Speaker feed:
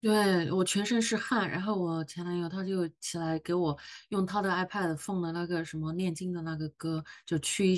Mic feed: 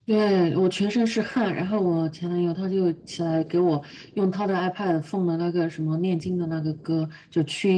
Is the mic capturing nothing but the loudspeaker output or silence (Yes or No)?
Yes